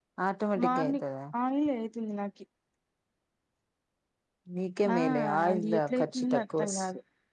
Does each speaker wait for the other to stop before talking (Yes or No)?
No